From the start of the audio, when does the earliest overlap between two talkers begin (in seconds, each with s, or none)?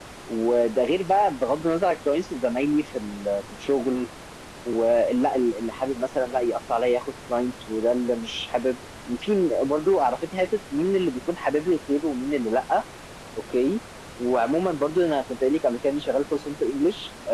none